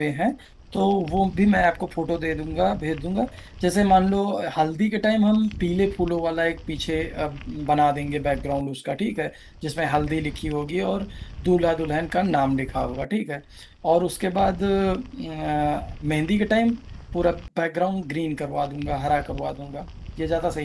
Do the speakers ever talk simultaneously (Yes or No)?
No